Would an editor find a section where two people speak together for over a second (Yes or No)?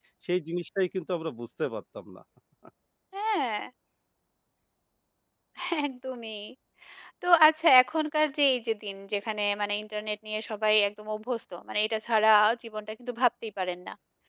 No